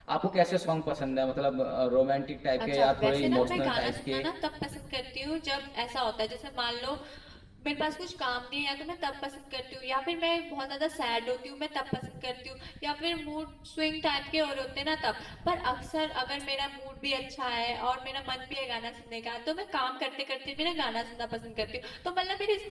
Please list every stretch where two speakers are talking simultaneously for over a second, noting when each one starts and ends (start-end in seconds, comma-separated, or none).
2.7-4.2